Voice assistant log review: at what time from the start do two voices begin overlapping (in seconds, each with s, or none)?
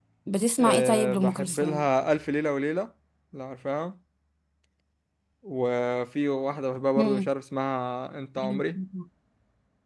0.6 s